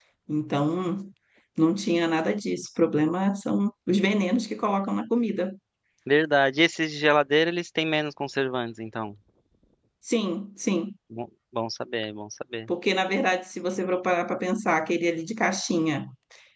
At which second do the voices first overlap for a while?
none

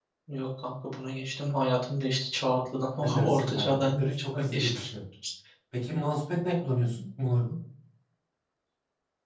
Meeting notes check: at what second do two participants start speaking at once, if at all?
3 s

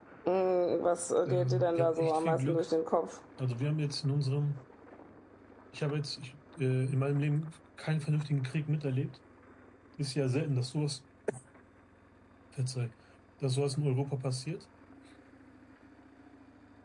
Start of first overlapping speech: 1 s

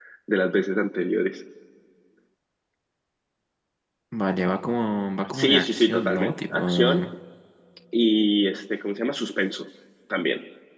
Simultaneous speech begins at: 5 s

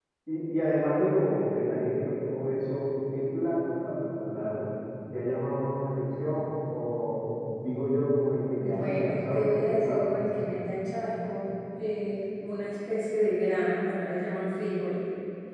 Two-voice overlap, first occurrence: 9 s

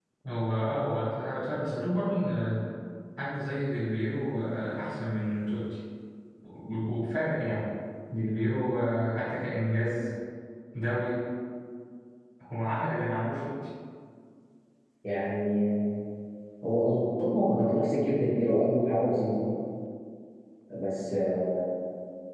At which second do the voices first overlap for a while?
none

